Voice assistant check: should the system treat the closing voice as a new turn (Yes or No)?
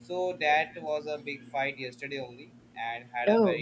No